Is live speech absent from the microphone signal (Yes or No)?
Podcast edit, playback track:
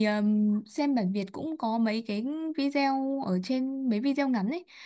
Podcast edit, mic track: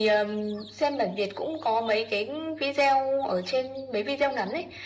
Yes